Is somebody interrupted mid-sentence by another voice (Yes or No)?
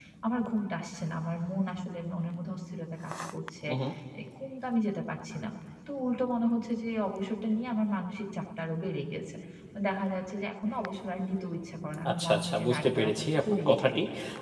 Yes